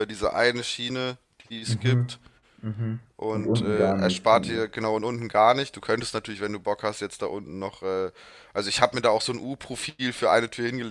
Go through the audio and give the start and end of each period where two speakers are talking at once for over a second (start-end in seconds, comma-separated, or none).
3.3-4.7